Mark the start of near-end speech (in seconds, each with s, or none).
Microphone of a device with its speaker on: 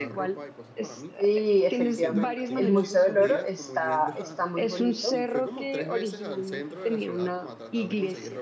1.2 s